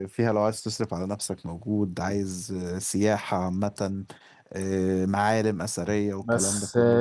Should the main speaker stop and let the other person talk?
Yes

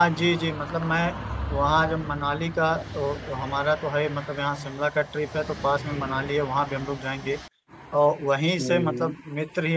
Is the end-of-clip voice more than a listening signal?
No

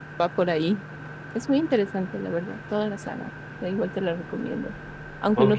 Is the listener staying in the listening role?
Yes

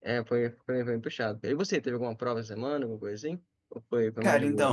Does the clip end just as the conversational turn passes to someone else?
Yes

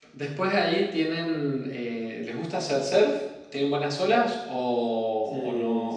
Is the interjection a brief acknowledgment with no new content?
No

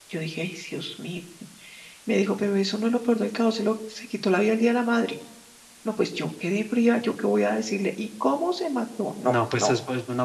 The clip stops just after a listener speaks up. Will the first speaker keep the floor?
No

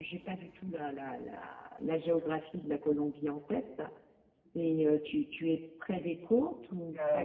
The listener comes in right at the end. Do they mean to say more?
Yes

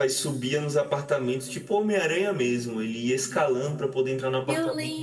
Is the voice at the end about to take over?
Yes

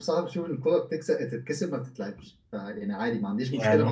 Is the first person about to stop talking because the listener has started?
No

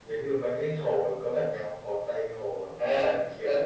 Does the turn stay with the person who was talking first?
No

